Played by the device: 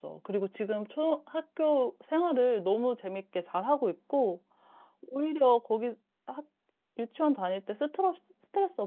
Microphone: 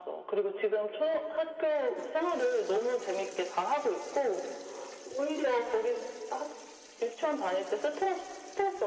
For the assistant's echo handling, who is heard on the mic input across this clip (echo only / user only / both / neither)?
echo only